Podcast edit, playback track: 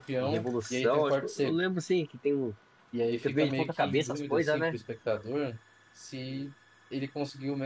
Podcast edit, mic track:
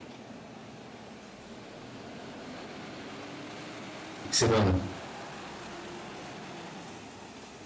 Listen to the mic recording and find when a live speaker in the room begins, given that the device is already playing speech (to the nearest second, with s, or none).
4 s